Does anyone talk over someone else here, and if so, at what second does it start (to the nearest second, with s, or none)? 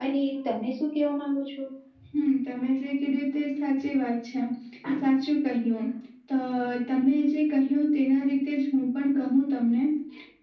none